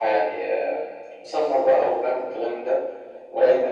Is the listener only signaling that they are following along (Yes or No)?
Yes